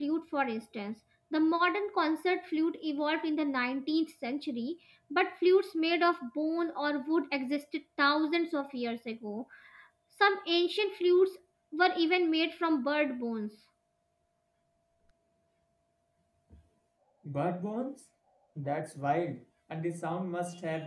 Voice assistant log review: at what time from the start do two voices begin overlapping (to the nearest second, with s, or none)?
none